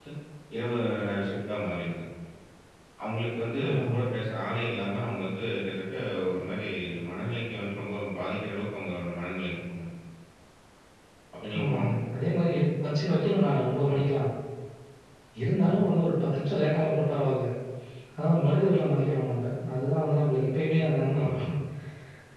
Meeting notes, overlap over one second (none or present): none